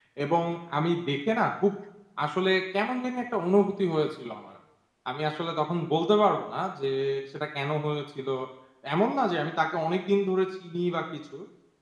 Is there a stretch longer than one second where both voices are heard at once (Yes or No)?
No